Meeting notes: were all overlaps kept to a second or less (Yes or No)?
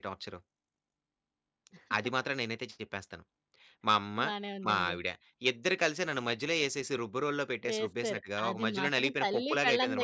No